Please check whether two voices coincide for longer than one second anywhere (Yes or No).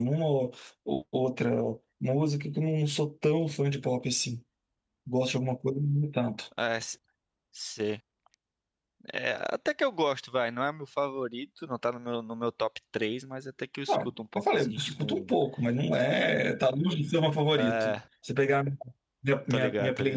Yes